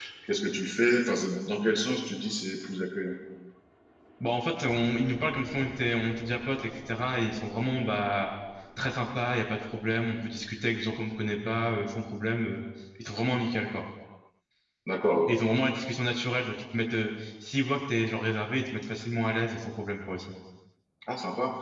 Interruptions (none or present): none